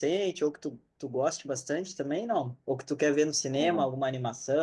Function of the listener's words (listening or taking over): listening